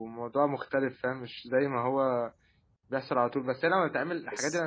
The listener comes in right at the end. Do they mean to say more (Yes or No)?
No